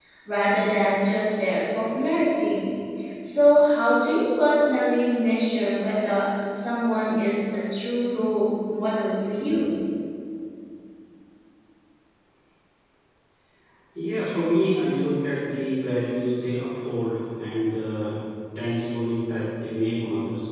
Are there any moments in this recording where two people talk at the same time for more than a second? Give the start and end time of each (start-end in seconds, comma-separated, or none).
none